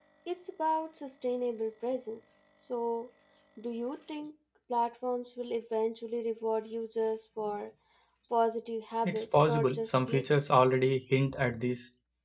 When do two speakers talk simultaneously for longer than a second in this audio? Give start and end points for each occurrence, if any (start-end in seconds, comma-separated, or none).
9.0-10.5